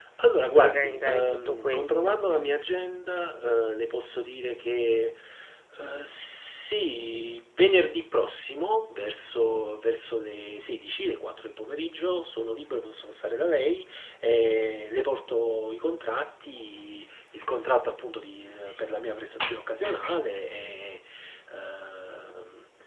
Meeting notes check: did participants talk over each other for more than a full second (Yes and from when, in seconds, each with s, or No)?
Yes, from 0.5 s